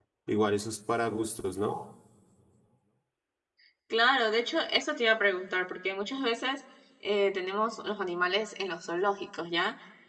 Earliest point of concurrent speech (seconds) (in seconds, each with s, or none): none